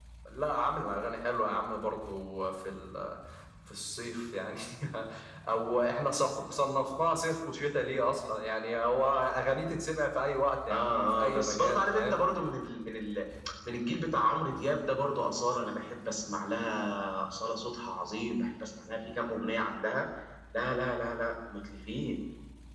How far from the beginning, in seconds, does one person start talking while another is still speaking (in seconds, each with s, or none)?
10.7 s